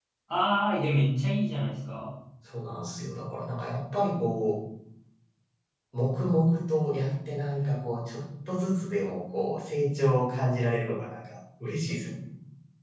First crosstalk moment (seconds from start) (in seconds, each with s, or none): none